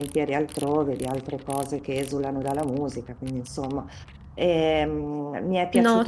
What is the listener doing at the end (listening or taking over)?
listening